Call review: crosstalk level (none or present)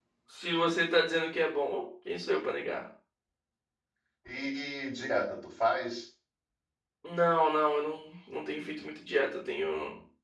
none